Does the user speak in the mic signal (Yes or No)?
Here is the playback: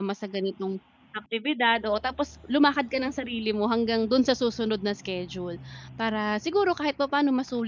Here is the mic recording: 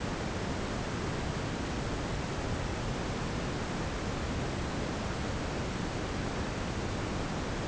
No